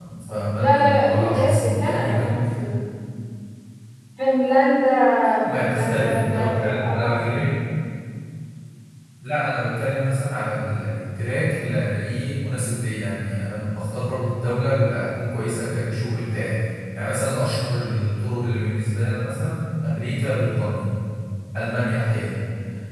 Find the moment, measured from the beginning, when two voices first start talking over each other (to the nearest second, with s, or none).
1 s